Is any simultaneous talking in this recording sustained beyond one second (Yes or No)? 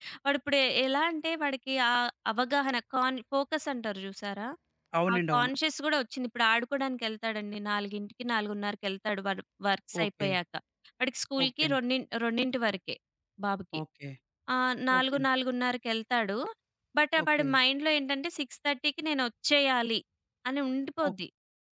No